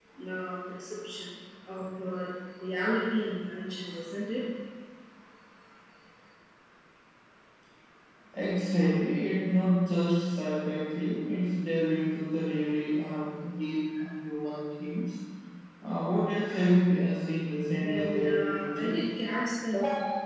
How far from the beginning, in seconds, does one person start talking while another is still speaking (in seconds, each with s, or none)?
17.8 s